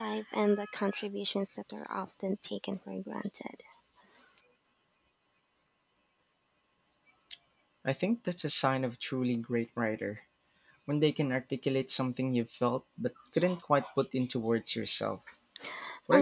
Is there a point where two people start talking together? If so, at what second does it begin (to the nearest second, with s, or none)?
none